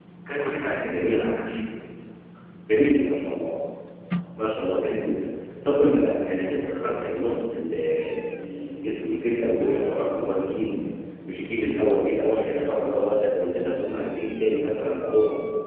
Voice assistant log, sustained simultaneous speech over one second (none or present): none